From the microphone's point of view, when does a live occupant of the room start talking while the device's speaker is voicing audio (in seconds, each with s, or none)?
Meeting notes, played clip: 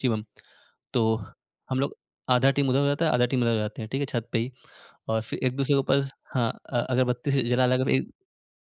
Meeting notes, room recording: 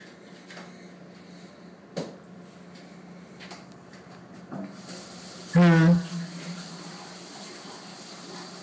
5.5 s